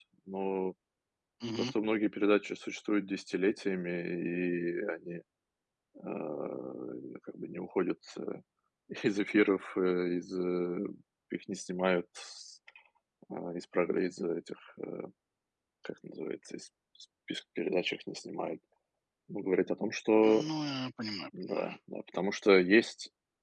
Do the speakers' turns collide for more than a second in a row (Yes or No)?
No